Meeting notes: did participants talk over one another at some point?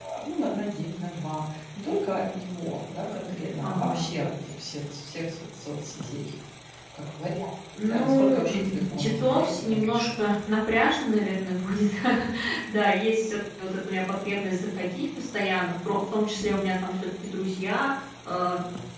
Yes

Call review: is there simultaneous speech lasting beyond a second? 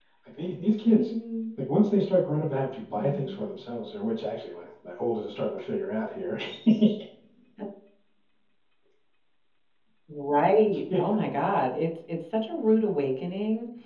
No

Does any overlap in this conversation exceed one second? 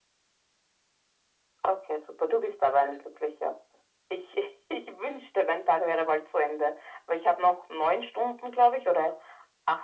No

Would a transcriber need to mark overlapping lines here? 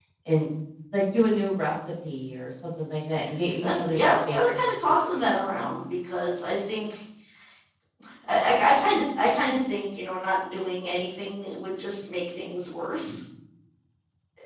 Yes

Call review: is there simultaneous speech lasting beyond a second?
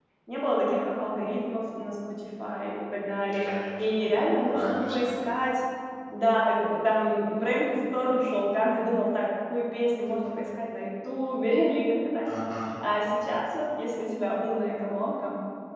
Yes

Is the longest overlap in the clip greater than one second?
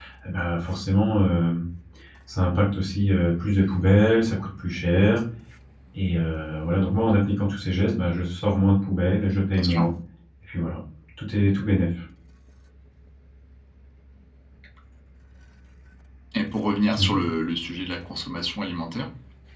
No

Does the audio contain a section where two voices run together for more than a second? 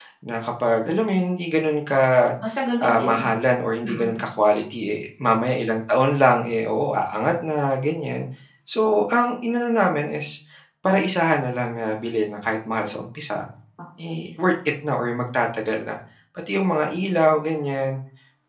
No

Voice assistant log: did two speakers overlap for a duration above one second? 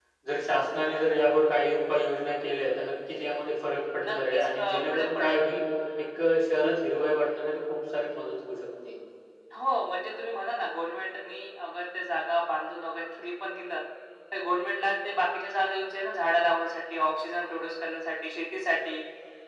Yes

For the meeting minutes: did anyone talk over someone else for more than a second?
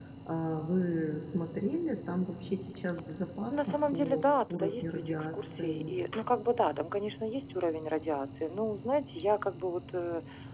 Yes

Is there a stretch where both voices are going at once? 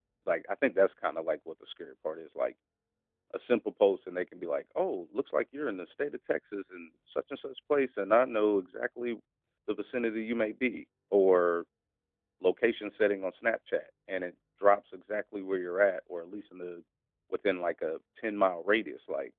No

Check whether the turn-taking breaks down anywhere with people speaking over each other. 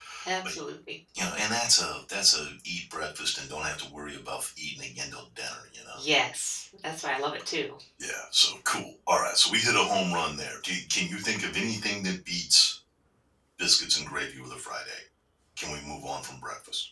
No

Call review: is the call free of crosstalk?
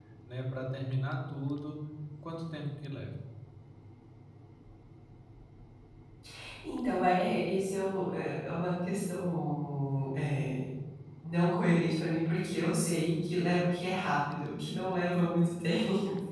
Yes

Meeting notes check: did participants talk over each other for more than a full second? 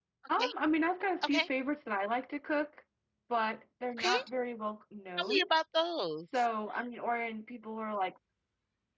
No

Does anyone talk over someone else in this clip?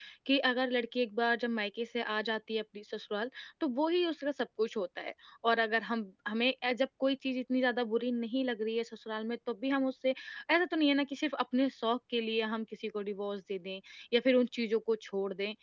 No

